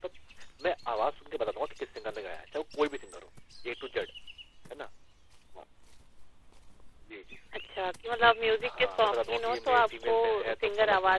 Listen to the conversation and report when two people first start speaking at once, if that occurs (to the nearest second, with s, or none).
9 s